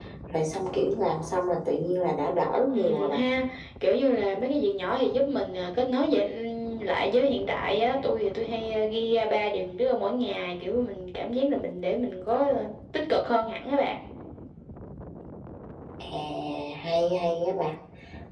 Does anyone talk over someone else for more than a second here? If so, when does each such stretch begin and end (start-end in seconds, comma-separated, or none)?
none